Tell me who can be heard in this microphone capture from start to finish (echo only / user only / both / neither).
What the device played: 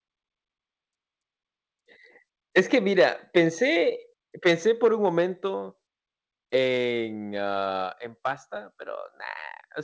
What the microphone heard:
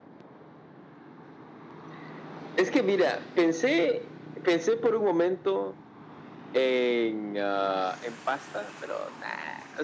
echo only